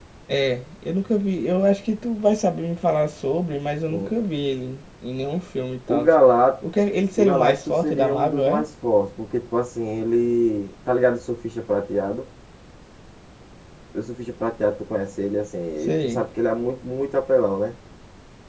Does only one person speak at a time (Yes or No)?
No